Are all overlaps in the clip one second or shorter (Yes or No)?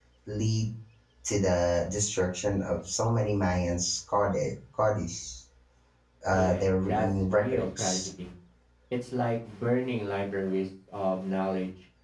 No